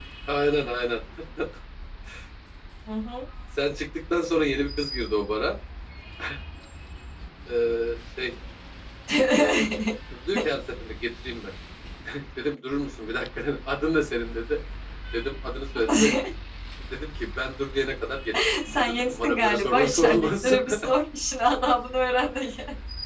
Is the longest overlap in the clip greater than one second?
Yes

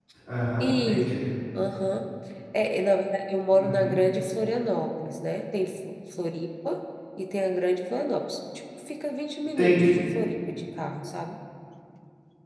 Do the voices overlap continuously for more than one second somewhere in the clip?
No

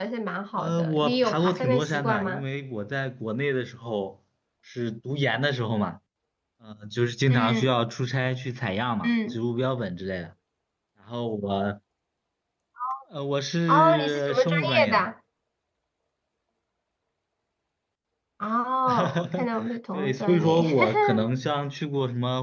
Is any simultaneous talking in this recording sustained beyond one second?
Yes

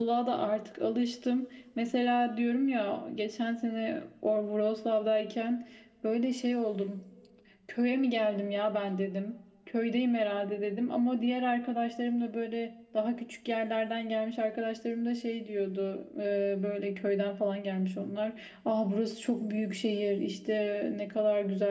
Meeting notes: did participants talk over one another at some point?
No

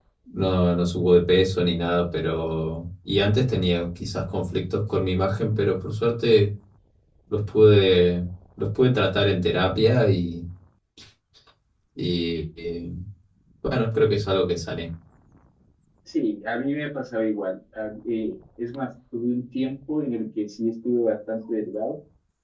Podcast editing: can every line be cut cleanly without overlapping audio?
Yes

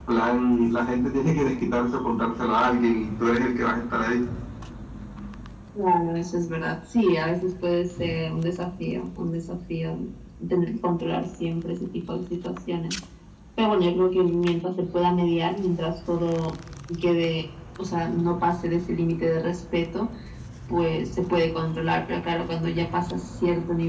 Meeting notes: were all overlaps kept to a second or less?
Yes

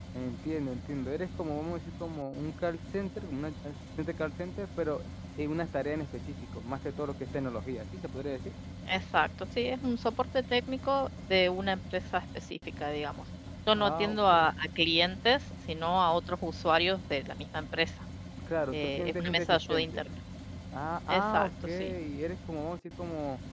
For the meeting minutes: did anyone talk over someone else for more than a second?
Yes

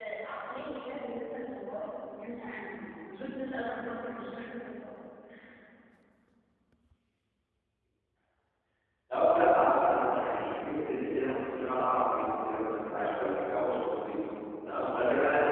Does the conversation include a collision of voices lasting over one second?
No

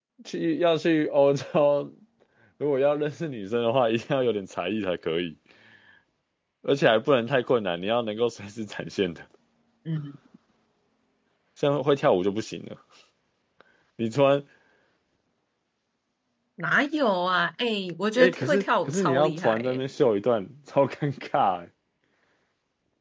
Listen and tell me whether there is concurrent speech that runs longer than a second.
Yes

